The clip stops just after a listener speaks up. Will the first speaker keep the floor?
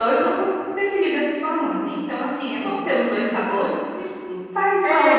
No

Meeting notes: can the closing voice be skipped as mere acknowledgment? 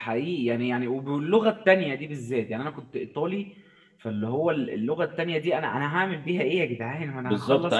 No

